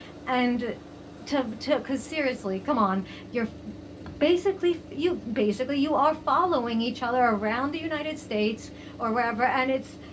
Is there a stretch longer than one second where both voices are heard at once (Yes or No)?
No